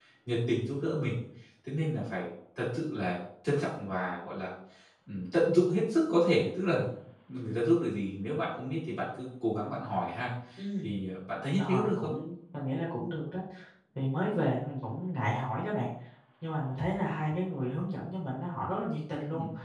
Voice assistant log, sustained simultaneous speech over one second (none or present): none